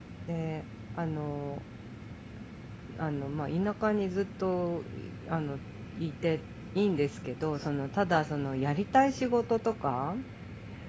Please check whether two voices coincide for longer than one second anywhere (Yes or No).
No